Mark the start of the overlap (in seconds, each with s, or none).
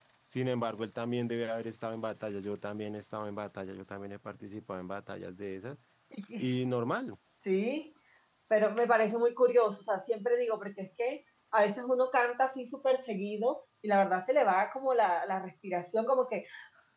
none